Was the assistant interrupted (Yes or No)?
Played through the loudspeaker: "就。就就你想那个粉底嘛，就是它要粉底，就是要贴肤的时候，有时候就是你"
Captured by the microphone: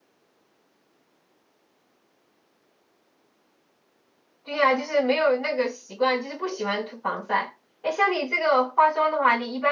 Yes